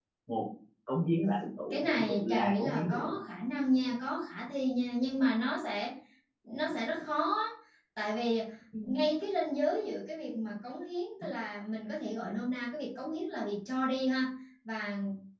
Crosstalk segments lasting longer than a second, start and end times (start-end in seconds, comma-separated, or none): 1.7-3.1